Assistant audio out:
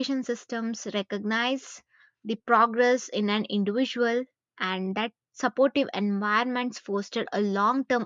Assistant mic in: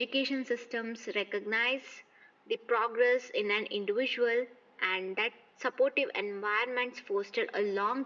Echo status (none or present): present